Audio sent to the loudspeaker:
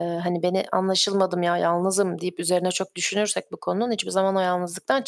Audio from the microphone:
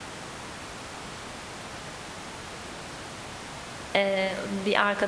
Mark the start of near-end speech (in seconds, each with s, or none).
3.9 s